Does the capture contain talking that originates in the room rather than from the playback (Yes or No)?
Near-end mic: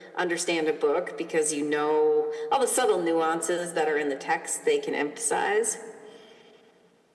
No